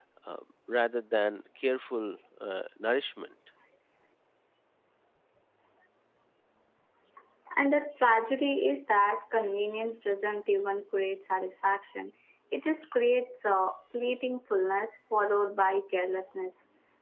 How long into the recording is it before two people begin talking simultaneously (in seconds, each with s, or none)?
none